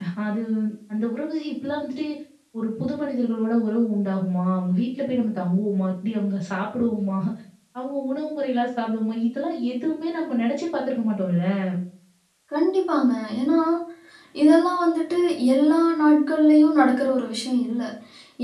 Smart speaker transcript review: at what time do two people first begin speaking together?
none

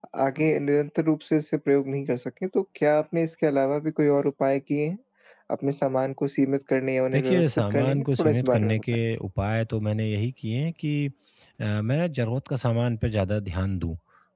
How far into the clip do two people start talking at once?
7.1 s

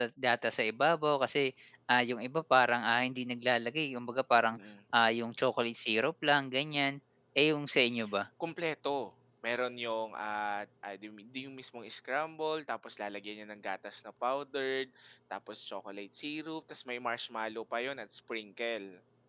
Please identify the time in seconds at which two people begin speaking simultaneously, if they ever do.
none

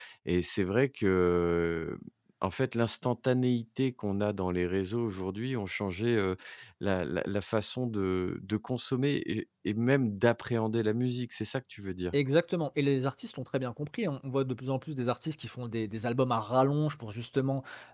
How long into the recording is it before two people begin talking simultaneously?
none

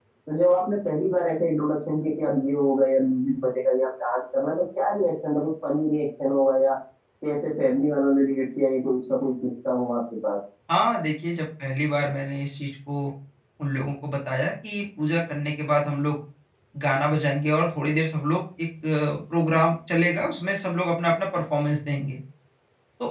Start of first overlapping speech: none

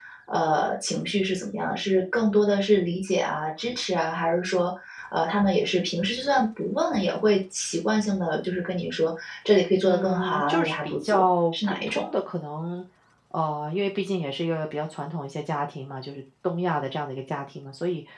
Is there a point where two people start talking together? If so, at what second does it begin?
9.8 s

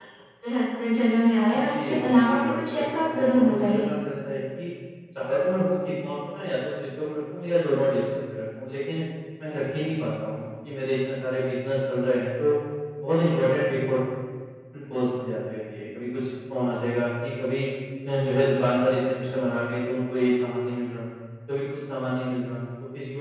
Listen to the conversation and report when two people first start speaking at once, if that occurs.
1.5 s

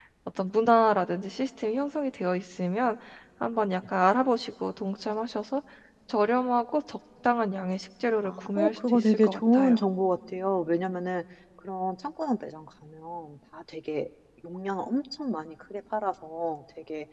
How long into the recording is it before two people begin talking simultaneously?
8.2 s

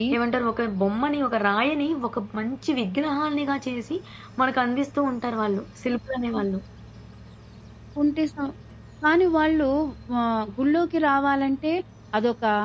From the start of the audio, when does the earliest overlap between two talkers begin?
none

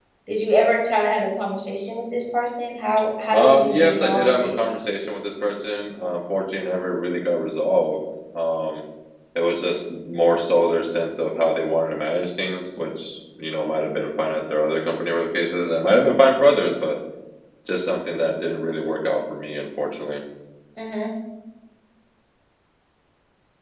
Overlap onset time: 3.3 s

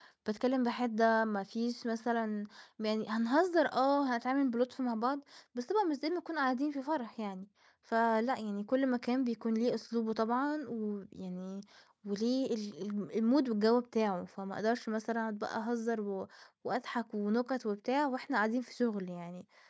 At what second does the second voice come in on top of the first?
none

